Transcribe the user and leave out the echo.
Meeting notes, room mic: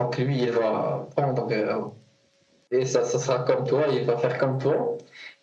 none

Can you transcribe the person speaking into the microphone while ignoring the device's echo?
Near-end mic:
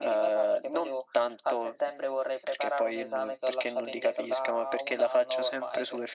none

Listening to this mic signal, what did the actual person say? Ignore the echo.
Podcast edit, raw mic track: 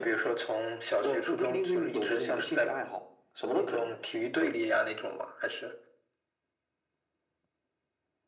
none

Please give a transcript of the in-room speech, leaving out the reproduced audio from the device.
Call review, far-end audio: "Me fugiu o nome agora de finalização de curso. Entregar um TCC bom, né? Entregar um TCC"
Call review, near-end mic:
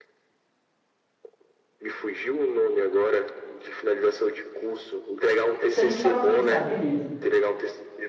se a gente parar para pensar, beleza.

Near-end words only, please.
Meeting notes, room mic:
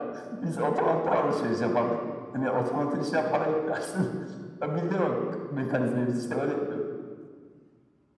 none

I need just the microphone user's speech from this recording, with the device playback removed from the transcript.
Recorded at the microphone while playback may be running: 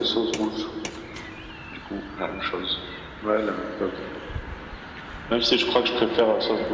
none

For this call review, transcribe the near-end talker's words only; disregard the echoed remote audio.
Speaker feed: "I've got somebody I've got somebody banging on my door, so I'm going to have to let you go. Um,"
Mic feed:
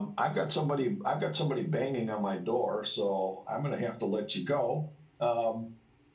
none

